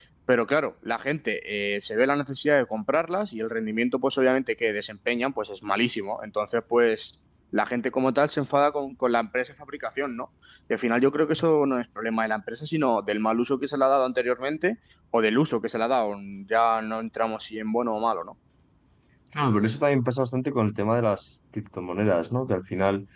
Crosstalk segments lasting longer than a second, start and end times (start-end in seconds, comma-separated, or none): none